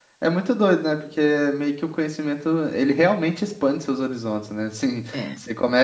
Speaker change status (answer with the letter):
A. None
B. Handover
A